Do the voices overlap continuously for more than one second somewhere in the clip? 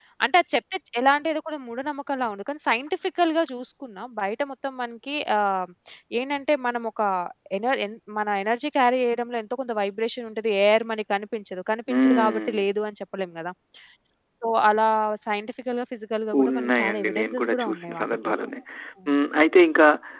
Yes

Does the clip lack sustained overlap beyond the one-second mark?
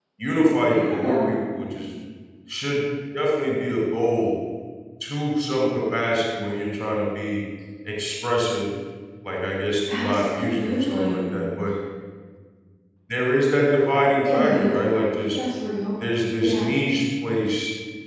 No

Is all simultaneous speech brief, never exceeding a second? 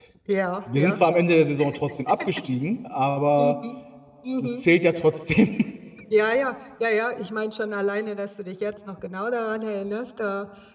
Yes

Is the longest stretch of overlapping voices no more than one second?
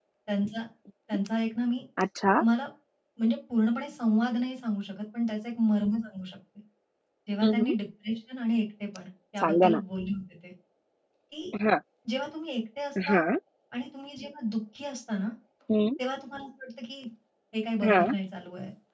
Yes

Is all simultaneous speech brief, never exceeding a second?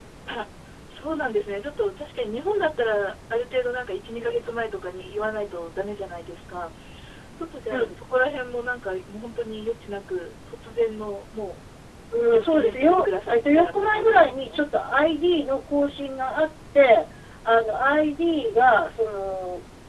No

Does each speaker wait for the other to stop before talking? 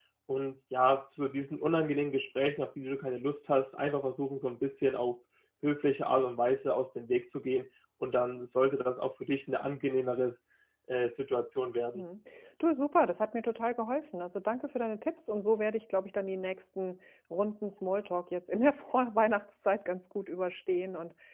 Yes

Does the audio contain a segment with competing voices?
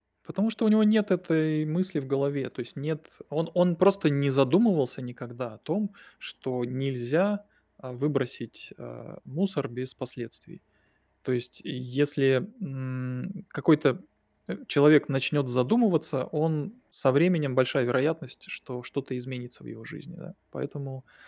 No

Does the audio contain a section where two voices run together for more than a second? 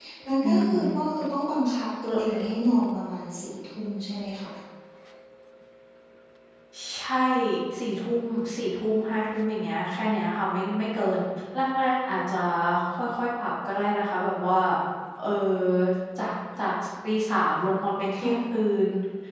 No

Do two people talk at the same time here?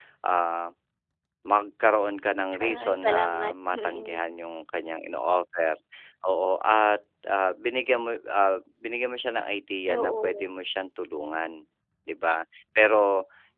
Yes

